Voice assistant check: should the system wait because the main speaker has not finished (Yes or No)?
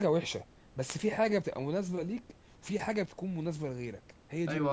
No